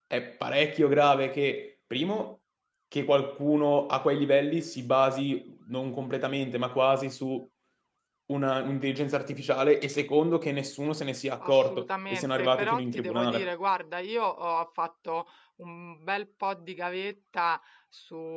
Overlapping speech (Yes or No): Yes